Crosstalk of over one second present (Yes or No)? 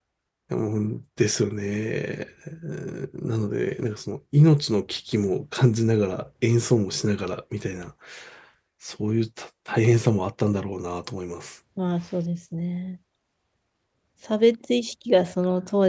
No